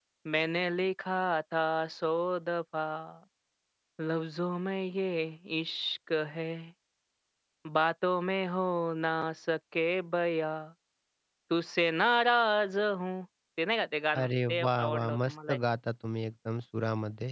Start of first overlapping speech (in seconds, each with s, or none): 14.2 s